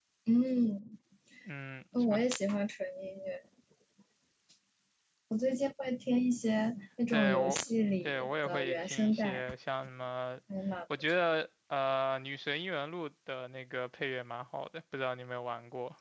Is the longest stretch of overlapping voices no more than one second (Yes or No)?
No